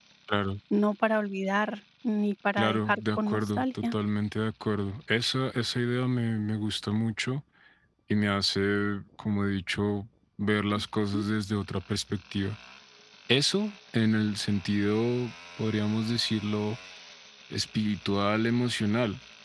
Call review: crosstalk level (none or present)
present